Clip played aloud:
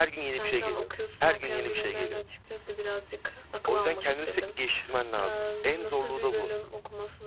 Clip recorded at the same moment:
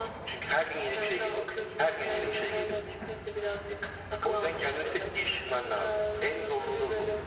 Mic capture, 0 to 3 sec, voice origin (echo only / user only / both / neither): echo only